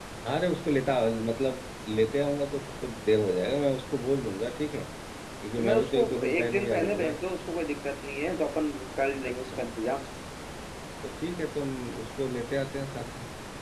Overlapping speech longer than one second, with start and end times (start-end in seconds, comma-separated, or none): 5.6-7.1